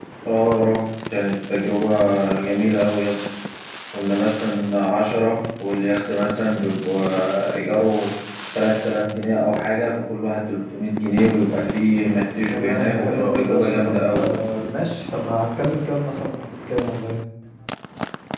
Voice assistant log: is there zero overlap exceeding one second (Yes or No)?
No